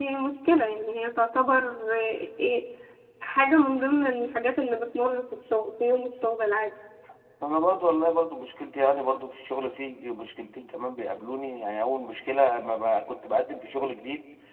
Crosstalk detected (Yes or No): No